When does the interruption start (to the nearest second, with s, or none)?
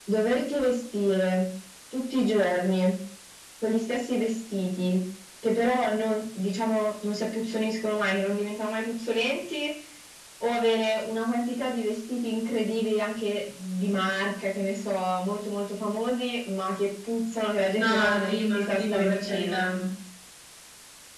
18 s